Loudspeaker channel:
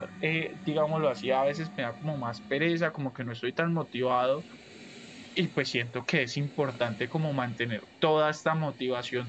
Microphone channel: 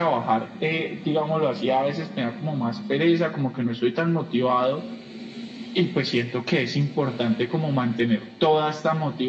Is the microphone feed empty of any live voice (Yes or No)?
Yes